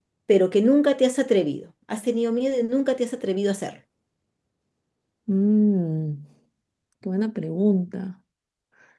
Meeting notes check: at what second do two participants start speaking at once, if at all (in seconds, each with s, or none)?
none